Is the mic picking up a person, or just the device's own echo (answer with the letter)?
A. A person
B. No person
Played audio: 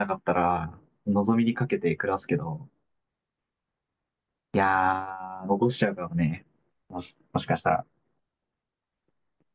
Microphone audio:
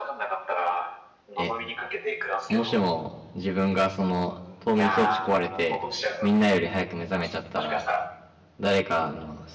A